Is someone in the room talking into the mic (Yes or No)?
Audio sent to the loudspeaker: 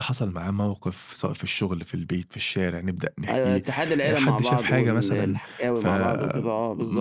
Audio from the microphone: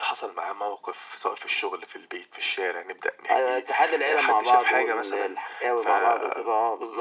No